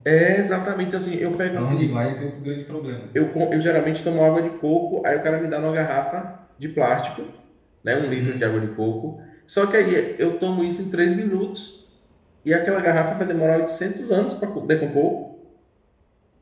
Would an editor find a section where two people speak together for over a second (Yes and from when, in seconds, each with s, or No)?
No